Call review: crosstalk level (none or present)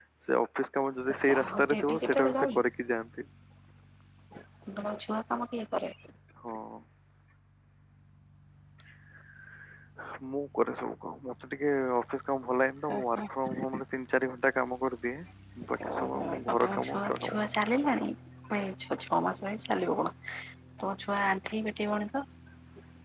present